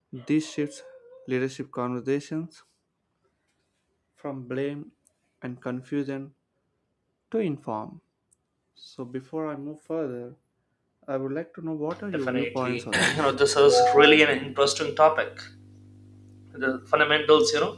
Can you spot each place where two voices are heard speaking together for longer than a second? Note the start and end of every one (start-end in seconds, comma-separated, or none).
12.1-13.4